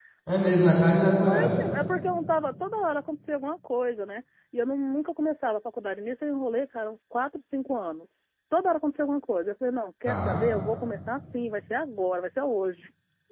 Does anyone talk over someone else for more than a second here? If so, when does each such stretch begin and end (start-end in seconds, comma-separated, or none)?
none